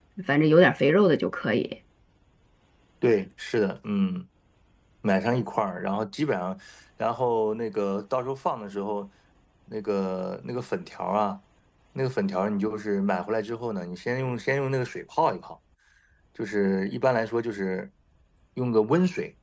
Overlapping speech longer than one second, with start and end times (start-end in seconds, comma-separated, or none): none